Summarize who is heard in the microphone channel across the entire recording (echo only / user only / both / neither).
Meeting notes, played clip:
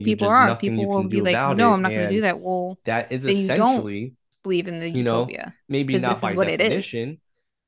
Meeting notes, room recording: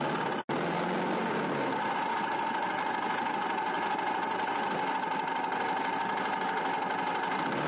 neither